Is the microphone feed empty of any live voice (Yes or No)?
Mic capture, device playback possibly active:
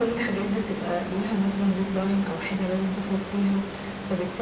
Yes